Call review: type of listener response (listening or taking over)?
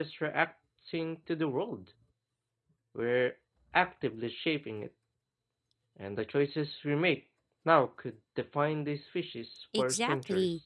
taking over